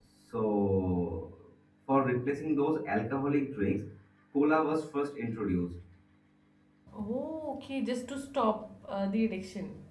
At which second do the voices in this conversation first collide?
none

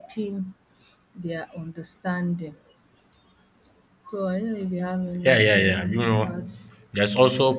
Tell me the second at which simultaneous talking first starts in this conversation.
5.2 s

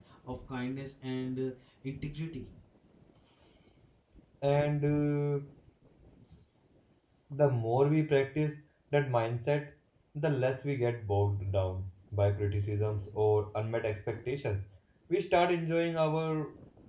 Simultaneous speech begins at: none

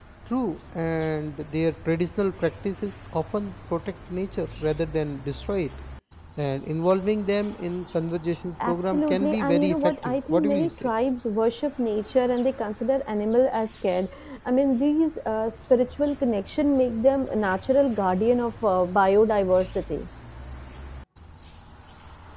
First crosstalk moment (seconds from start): 8.6 s

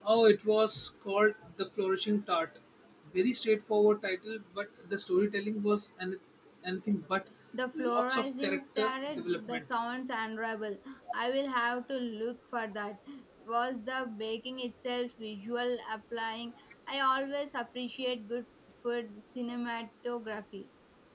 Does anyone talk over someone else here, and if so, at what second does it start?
7.8 s

